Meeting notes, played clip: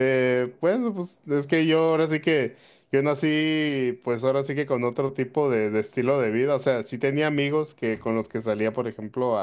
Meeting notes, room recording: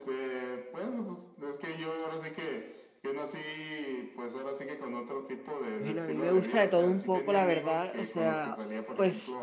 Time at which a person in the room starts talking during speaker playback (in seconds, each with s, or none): 5.7 s